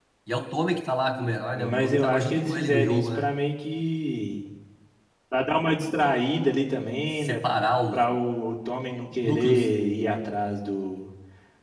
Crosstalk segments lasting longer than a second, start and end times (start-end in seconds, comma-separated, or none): 1.5-3.3